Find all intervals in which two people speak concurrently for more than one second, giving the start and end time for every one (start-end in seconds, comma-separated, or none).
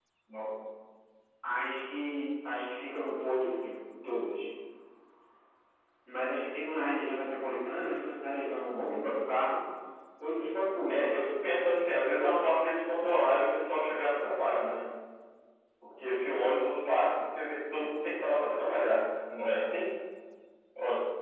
none